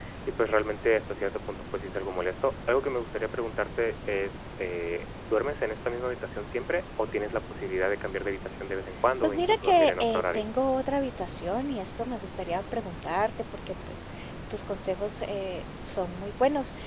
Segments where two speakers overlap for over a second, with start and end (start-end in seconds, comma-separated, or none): 9.2-10.5